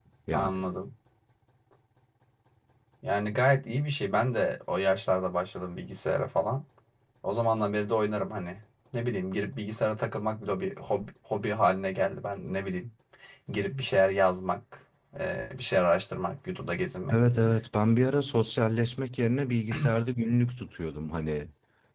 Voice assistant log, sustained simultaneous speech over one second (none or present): none